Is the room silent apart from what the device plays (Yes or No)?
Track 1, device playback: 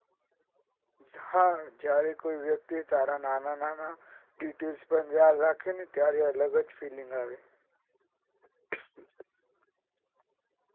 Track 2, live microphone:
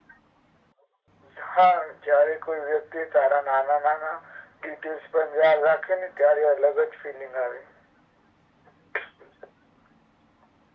Yes